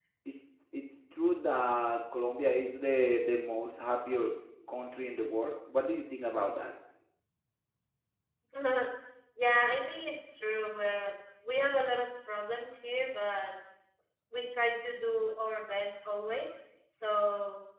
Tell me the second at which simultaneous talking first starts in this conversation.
none

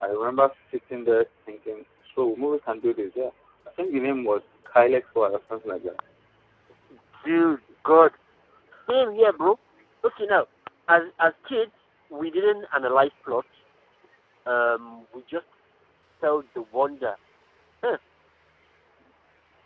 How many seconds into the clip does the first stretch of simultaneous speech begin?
none

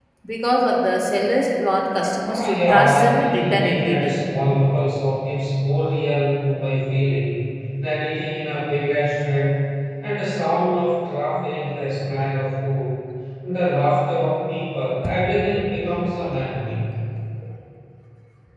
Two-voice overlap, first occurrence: 2.2 s

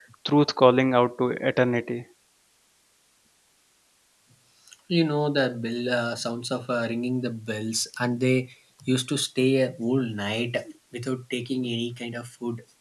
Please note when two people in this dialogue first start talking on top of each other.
none

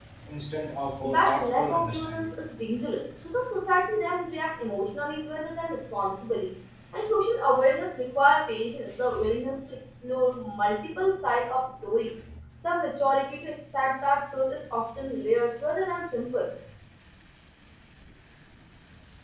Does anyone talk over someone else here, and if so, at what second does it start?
1.0 s

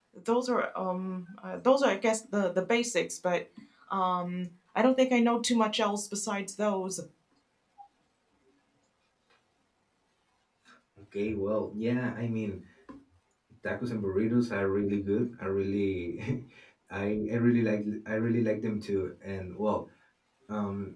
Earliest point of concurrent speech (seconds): none

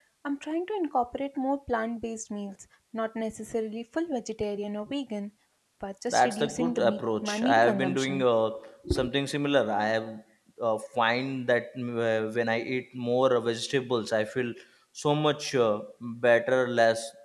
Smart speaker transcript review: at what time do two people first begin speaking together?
6.1 s

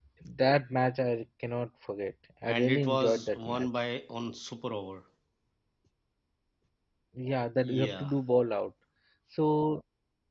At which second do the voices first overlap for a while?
2.5 s

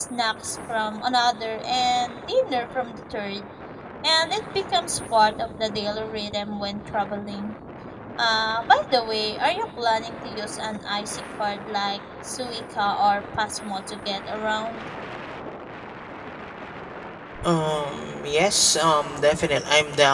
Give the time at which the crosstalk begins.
none

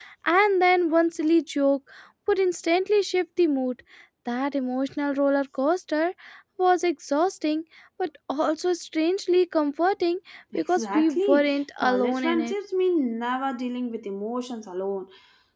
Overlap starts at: 10.7 s

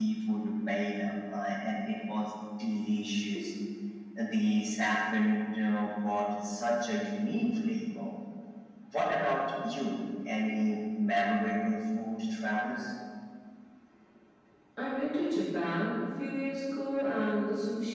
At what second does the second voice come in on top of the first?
none

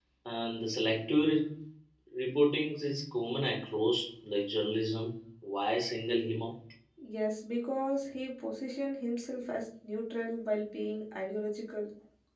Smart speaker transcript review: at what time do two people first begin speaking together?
none

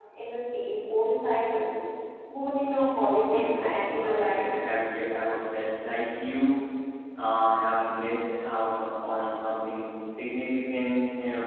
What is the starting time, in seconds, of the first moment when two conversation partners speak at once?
3.1 s

